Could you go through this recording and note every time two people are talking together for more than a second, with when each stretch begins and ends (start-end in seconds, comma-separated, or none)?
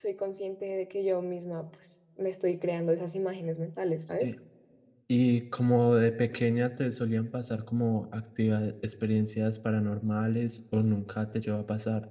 none